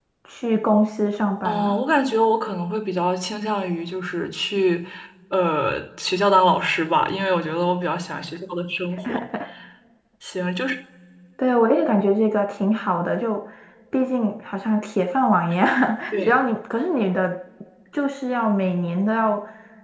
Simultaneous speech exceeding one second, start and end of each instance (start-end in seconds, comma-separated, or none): none